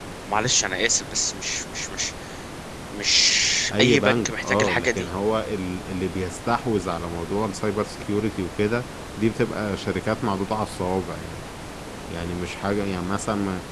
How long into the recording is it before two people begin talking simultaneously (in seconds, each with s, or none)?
3.8 s